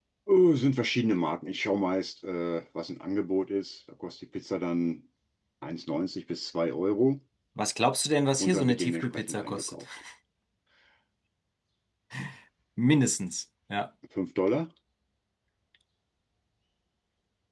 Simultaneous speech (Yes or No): Yes